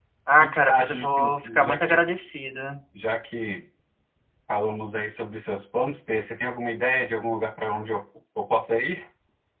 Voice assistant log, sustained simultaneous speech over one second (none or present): present